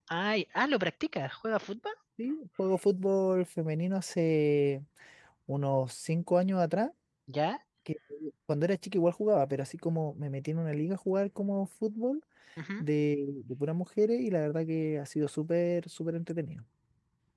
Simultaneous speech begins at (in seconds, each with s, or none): none